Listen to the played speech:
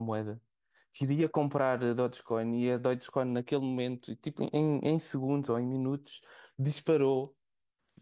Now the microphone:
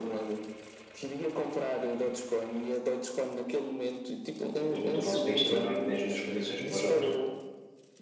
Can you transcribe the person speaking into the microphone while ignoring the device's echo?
infelizmente o nosso país também não é que dê as melhores condições para os jovens.

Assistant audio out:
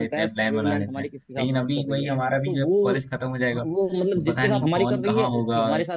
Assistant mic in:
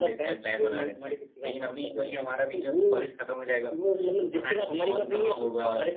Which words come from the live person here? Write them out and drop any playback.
none

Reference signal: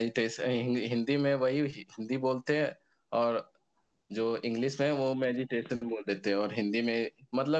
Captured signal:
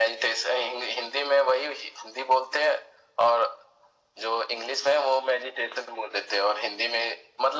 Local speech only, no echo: none

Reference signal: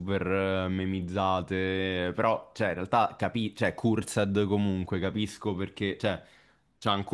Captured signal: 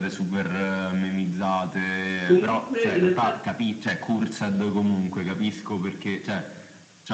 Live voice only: Comunque, in realtà,

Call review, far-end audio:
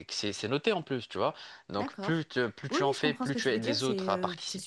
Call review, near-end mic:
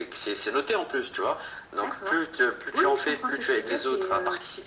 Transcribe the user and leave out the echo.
none

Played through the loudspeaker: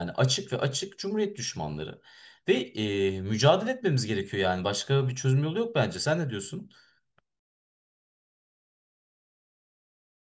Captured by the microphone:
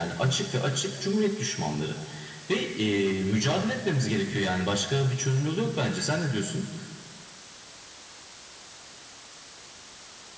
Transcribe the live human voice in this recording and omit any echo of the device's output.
none

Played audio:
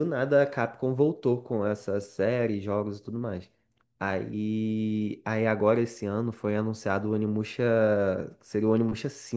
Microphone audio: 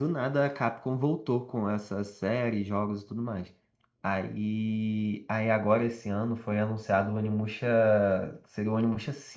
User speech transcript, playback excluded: none

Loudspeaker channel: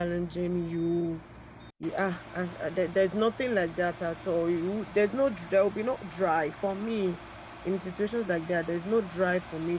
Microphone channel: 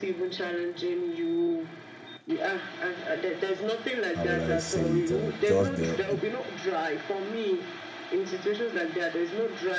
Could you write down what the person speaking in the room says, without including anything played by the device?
how would I say it, uh, just the,

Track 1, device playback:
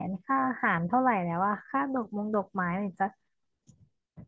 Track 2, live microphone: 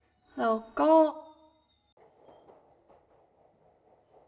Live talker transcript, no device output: แล้วก็

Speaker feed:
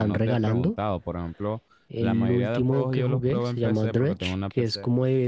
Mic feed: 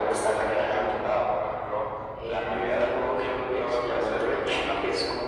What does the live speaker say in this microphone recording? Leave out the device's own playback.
none

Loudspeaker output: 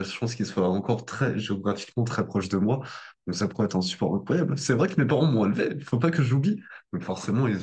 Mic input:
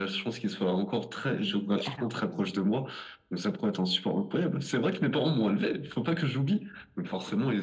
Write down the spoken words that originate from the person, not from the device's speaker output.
oui, alors oui,

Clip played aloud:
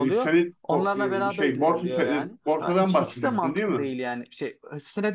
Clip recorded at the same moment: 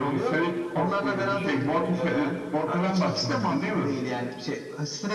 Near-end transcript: none

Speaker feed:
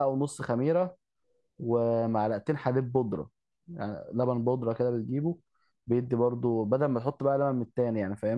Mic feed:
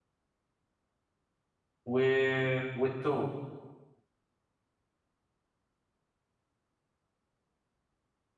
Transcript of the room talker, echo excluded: و... والتوم

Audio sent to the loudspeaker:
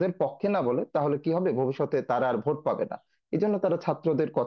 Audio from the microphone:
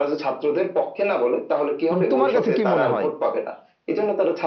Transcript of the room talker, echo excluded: মানে তোমার কাছে কি মনে হয়

